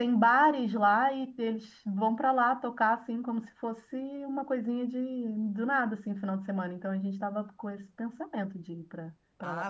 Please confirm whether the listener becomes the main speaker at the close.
Yes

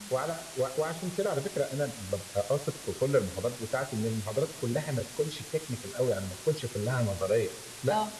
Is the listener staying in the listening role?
Yes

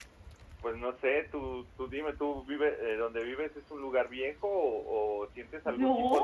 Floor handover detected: No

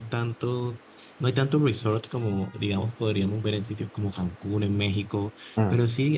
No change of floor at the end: Yes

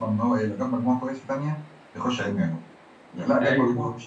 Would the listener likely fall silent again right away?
Yes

